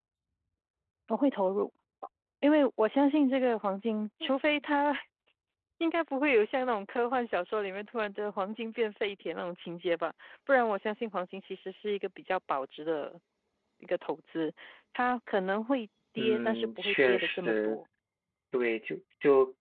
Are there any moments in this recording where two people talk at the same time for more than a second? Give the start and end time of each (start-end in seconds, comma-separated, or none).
16.2-17.8